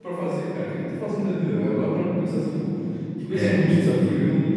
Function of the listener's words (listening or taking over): listening